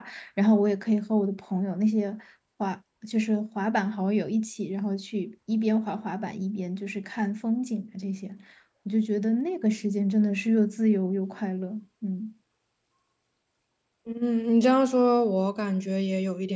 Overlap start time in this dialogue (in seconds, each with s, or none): none